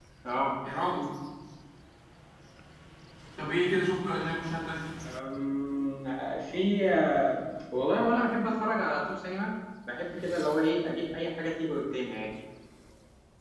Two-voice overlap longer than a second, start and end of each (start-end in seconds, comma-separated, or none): none